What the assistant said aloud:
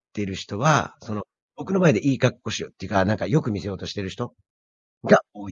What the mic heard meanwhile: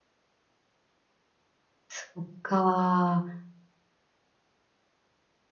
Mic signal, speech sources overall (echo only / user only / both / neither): user only